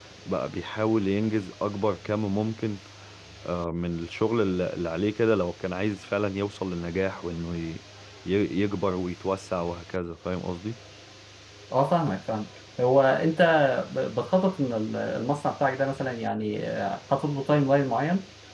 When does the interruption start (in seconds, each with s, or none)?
none